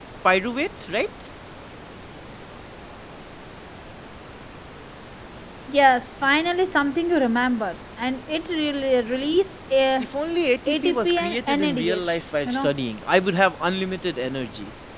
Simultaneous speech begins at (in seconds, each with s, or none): 10.7 s